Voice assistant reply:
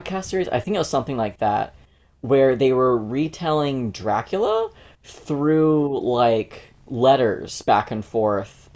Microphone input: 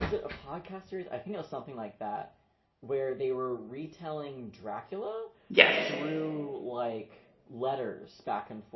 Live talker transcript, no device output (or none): Yes.